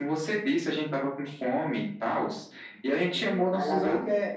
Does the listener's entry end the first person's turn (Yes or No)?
Yes